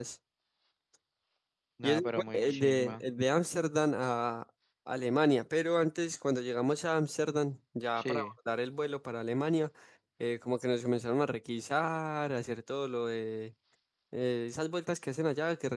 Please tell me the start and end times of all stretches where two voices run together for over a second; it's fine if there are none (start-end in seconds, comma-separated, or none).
1.8-3.0